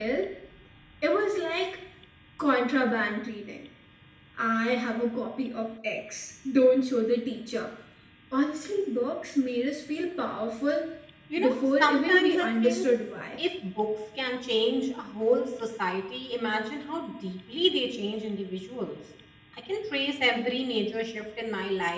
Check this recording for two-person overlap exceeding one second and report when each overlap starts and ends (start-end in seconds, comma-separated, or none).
11.4-12.9